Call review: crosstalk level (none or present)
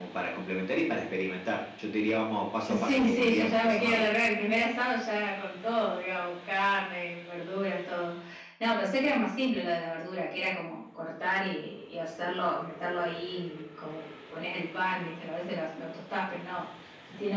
present